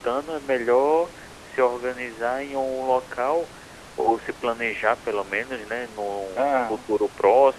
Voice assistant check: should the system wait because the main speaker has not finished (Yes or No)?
Yes